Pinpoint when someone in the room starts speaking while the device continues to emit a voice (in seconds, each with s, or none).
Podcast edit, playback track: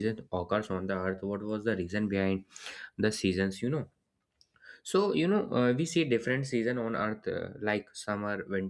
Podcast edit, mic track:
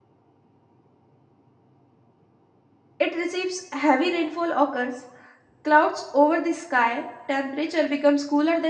3.0 s